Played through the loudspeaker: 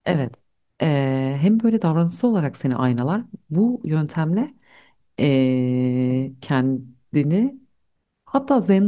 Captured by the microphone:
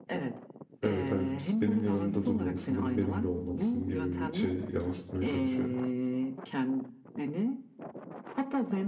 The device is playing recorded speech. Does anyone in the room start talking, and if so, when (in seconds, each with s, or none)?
0.8 s